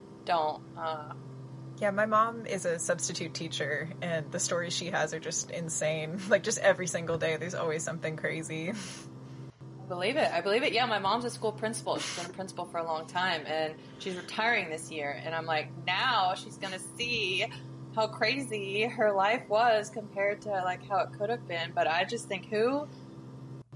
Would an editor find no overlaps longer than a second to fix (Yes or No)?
Yes